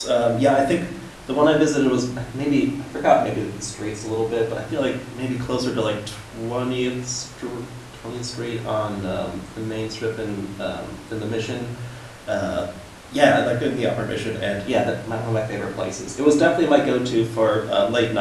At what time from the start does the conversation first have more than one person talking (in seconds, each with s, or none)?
none